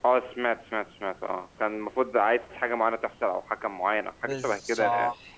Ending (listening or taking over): taking over